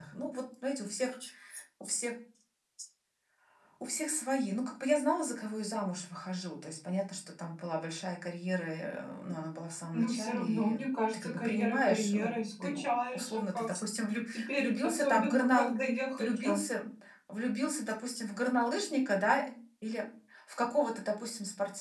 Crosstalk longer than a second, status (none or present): present